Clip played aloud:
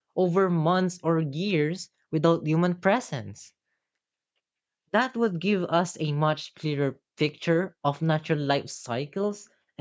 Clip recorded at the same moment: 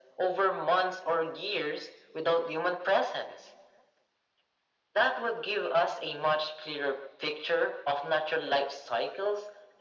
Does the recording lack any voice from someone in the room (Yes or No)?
Yes